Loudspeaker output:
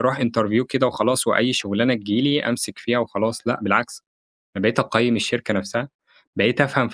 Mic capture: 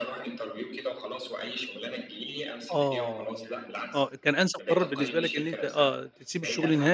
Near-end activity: present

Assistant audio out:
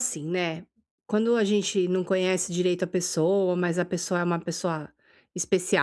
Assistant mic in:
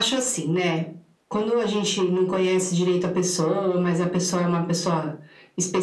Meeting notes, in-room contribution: none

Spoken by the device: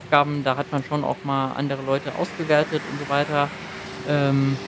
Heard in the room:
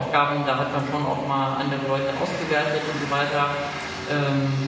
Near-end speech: none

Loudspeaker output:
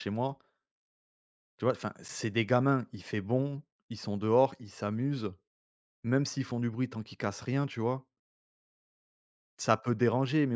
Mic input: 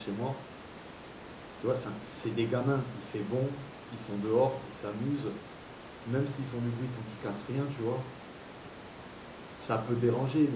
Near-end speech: none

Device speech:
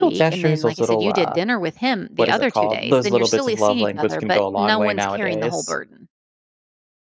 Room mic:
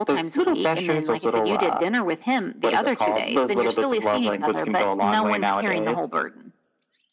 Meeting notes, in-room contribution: none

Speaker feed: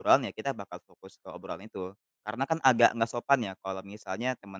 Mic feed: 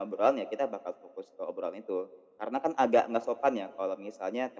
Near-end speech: none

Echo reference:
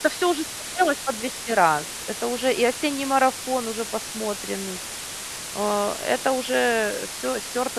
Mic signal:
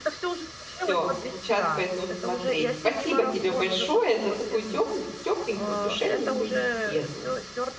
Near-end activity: present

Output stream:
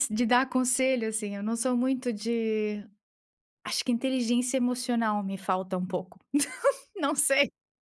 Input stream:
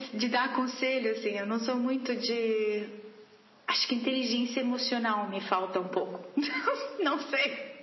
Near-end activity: none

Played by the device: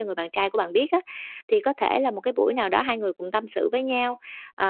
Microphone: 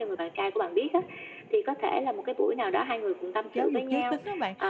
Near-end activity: present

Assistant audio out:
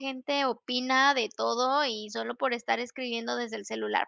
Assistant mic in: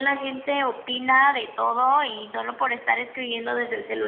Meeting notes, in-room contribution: none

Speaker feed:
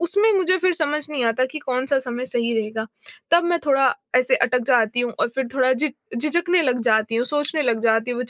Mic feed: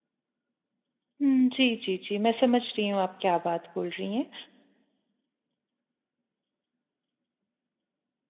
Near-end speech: present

